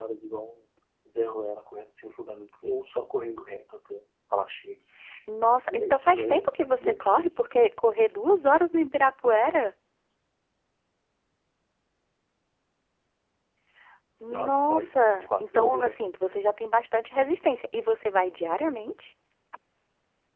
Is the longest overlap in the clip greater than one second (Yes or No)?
Yes